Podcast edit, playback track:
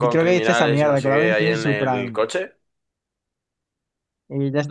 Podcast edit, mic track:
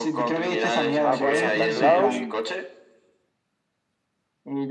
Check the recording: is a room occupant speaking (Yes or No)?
Yes